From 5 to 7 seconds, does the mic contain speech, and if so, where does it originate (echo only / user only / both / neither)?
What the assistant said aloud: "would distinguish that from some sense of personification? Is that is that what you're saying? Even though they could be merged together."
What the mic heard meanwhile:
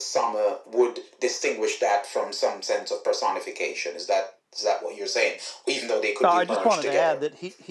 both